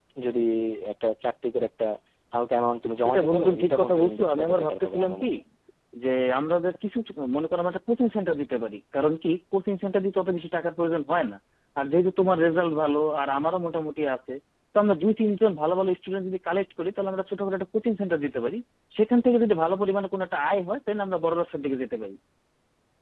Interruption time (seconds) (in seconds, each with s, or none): 3.0 s